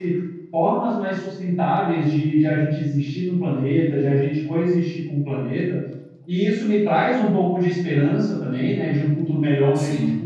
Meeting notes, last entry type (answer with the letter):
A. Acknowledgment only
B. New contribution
A